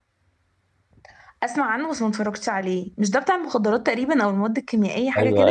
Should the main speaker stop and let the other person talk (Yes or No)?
Yes